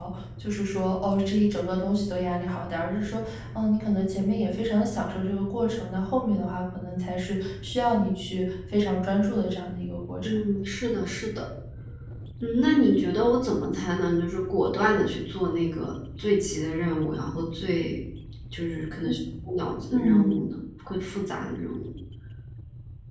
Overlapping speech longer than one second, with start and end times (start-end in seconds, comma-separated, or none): none